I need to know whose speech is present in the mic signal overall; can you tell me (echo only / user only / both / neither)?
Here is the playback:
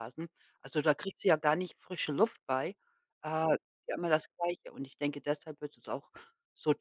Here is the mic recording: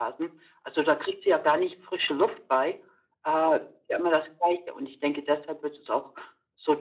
echo only